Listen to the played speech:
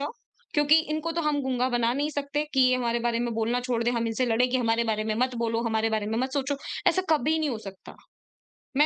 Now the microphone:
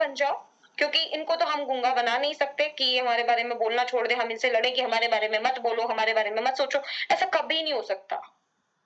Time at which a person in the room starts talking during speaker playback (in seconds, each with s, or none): none